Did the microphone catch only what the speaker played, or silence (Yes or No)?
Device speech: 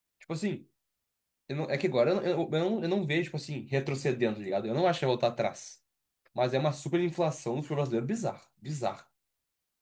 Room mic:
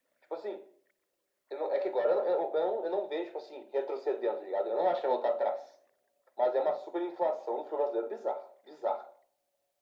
Yes